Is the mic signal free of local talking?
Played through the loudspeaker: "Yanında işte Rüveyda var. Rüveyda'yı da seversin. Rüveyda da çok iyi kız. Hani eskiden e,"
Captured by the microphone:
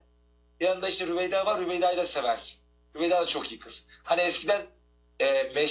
Yes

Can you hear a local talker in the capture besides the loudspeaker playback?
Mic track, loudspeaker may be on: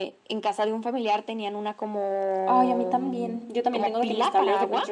Yes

